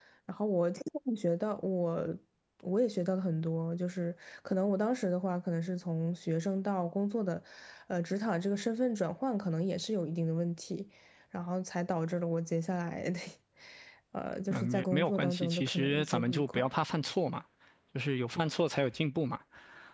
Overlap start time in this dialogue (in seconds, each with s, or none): 14.5 s